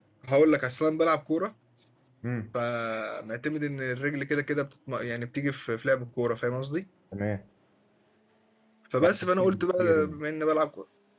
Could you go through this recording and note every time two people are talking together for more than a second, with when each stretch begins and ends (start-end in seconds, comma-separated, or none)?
9.0-10.2